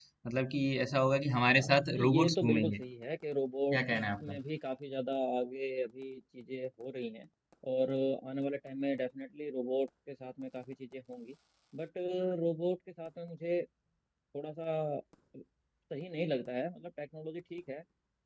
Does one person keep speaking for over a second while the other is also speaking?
Yes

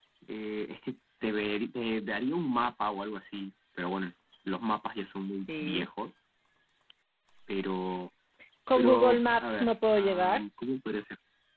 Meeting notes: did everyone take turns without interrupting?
No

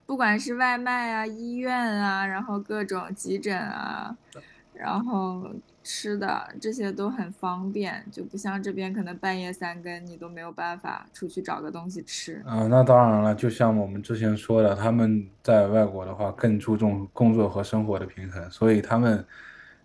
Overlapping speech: No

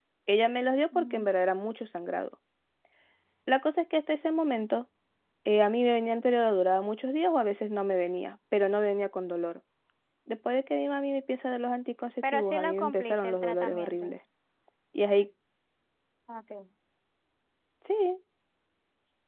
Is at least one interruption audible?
Yes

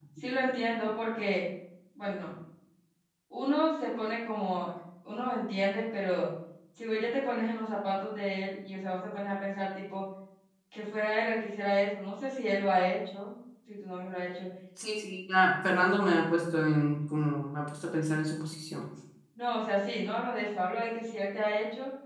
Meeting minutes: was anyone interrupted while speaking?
No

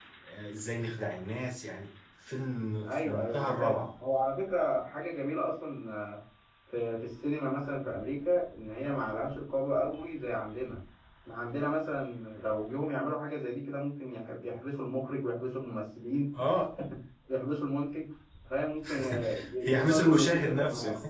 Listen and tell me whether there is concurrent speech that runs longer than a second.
Yes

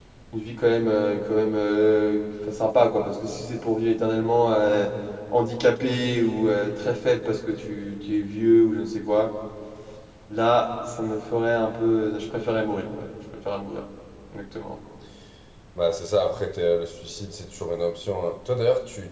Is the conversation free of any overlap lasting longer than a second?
Yes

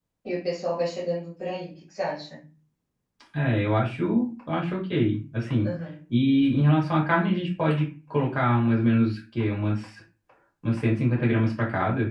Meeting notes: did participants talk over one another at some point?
No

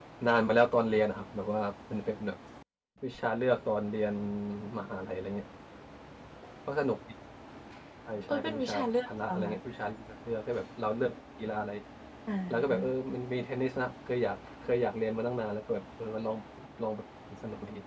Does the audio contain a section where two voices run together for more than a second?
Yes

